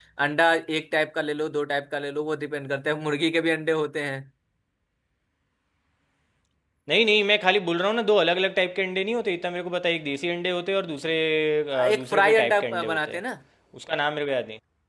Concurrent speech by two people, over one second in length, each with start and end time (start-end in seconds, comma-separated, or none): 11.9-13.2